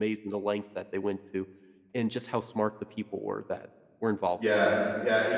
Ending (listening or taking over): taking over